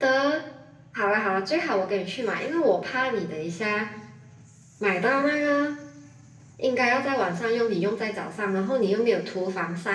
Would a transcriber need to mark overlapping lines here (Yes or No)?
No